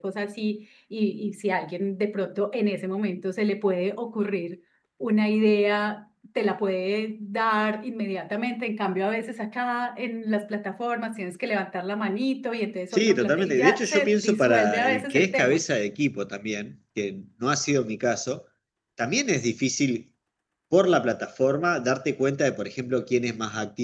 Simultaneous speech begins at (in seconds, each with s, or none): 12.9 s